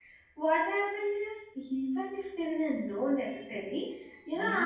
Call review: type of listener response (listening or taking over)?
listening